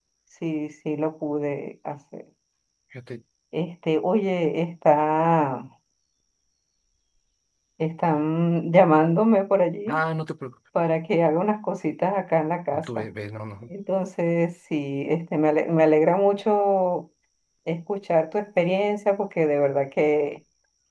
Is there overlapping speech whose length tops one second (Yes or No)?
No